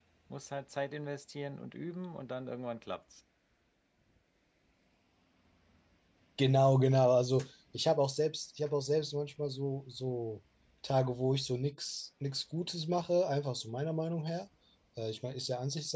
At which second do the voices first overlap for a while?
none

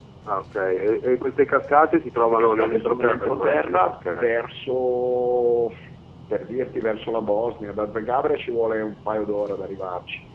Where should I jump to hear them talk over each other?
2.2 s

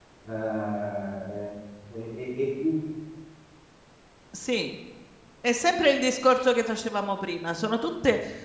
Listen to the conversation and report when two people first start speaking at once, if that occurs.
none

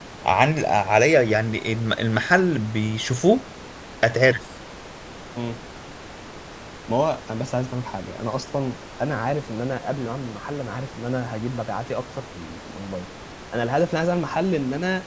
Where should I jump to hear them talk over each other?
none

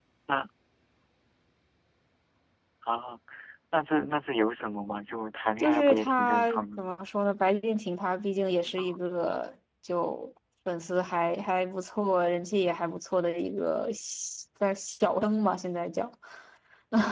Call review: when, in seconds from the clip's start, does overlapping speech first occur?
5.6 s

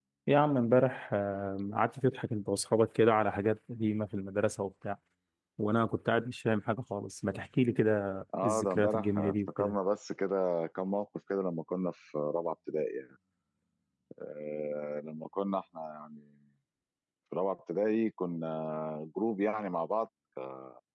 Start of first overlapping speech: 8.3 s

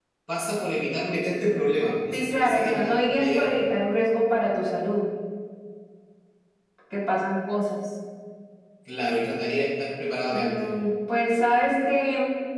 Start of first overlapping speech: 2.1 s

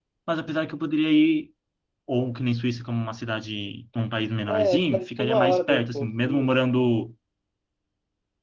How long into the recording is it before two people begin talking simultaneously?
4.5 s

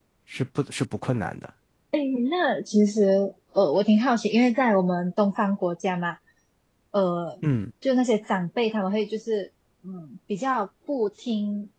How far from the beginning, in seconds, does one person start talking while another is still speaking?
none

